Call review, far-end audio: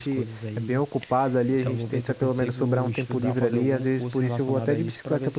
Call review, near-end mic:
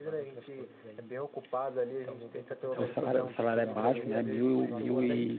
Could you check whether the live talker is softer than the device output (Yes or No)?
No